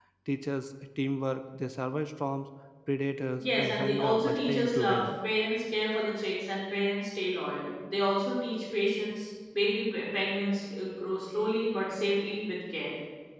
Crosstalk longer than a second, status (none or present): present